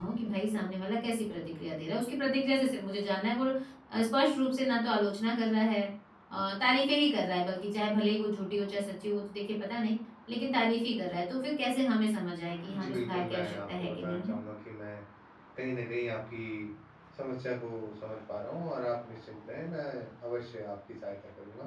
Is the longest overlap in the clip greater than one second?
Yes, from 12.7 s

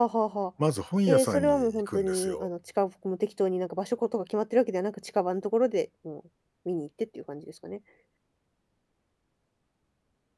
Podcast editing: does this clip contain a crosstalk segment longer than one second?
Yes, from 1.1 s

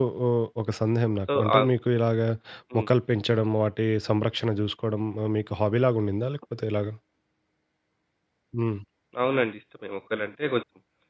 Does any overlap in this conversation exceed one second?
No

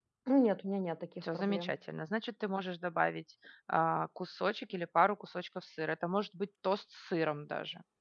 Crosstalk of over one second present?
No

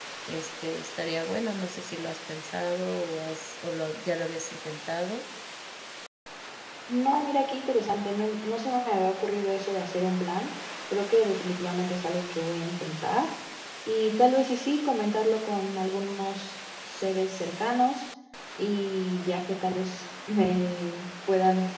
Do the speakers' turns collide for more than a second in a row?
No

